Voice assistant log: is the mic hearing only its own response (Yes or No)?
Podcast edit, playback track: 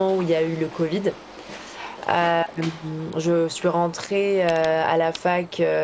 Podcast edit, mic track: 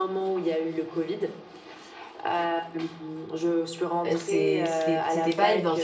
No